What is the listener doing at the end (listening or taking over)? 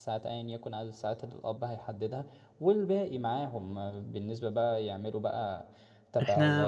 listening